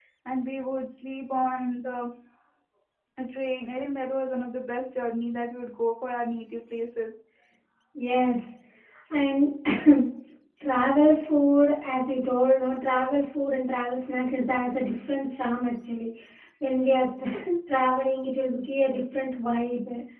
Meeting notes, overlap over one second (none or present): none